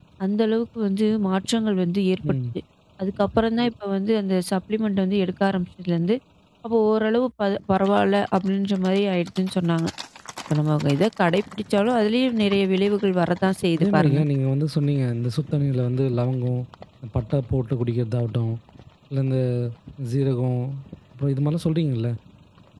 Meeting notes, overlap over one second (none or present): none